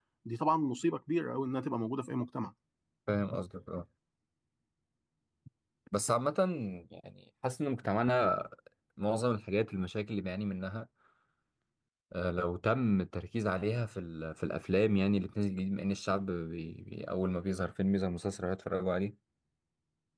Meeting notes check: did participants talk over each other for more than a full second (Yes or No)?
No